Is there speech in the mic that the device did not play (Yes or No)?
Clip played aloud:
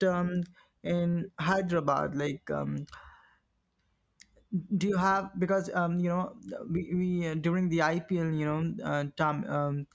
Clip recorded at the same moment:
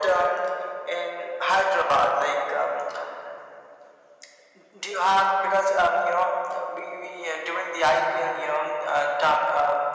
No